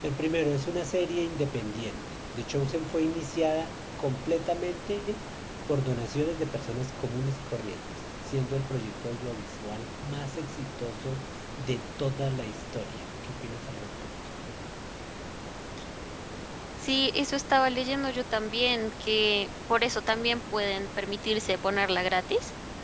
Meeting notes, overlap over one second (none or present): none